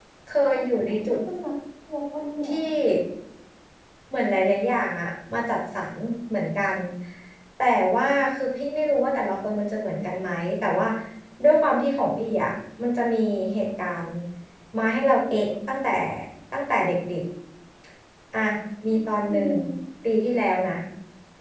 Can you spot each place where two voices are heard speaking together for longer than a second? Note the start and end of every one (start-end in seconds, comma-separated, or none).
none